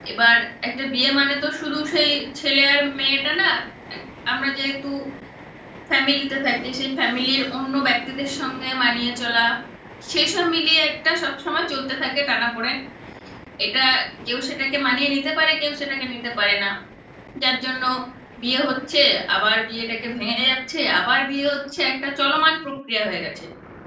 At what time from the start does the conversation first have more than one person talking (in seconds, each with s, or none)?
none